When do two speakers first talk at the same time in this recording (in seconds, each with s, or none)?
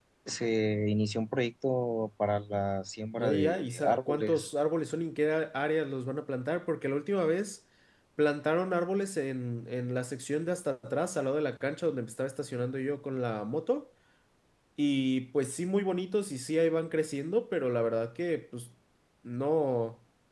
3.2 s